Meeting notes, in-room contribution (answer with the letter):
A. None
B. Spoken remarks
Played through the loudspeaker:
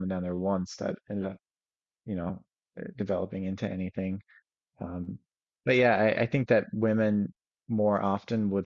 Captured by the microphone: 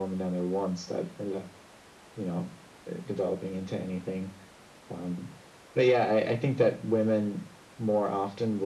A